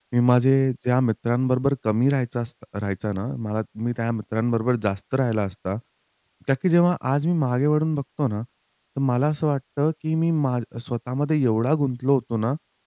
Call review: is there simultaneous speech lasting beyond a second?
No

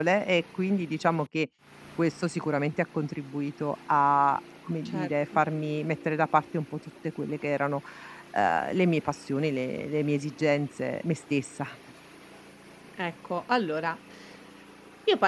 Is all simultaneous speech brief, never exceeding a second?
Yes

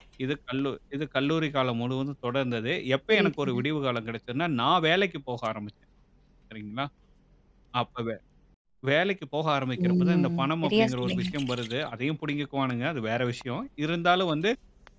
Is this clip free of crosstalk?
No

